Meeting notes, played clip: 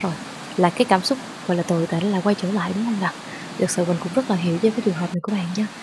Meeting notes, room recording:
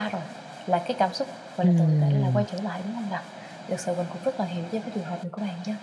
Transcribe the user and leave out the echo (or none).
Ừm.